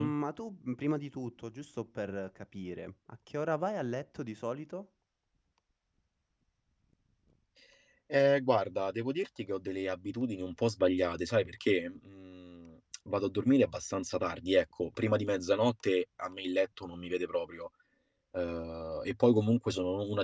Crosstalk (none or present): none